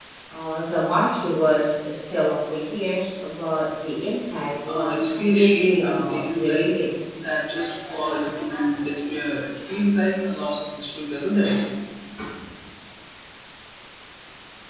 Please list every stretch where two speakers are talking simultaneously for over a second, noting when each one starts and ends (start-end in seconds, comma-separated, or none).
4.7-6.7